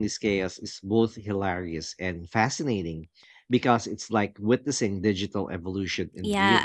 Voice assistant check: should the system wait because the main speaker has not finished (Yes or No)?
No